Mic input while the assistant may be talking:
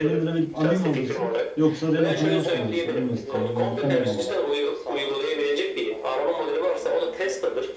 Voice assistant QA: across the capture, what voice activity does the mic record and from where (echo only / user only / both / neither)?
both